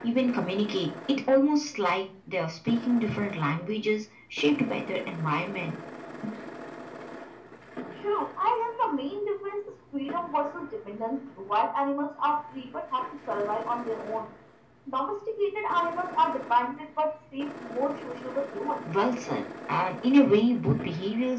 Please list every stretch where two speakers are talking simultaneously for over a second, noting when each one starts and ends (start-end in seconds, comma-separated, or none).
none